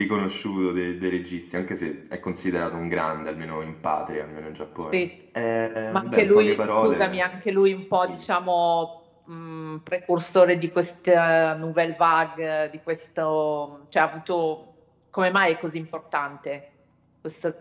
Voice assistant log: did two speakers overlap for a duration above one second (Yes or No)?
Yes